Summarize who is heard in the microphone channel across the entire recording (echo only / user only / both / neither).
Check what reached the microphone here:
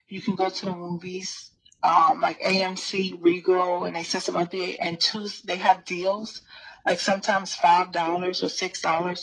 echo only